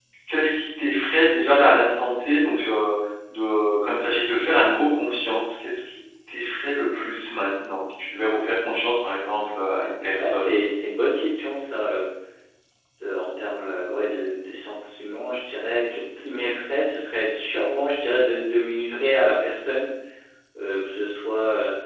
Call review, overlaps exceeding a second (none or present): none